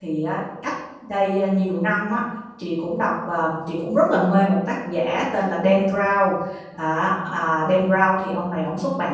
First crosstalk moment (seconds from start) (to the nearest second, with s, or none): none